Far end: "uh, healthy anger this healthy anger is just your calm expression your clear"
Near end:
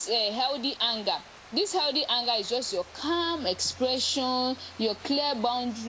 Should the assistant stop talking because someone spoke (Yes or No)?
No